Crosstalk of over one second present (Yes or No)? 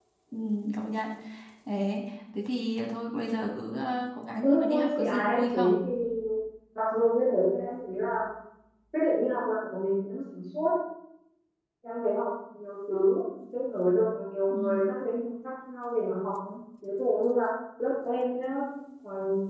Yes